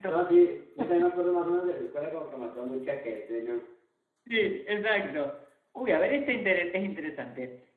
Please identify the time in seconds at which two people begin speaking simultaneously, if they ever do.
none

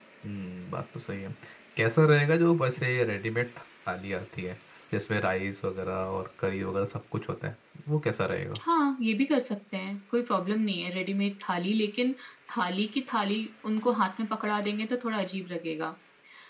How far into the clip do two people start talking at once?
none

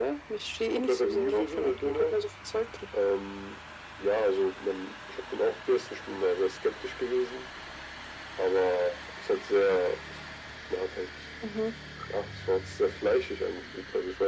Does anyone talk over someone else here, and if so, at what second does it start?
1 s

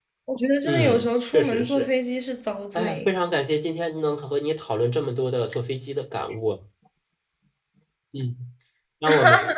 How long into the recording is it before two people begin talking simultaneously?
1 s

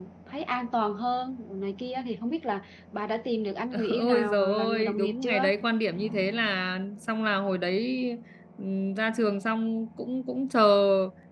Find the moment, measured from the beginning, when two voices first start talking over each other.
4 s

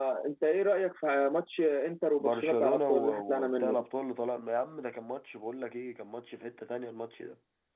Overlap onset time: 2 s

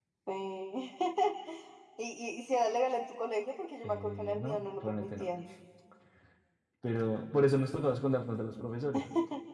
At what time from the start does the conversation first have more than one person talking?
4 s

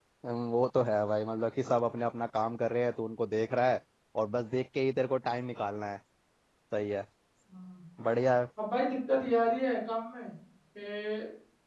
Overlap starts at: none

